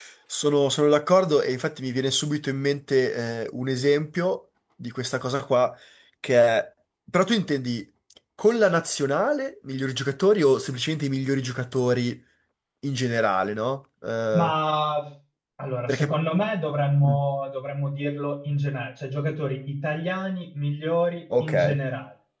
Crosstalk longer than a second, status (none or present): none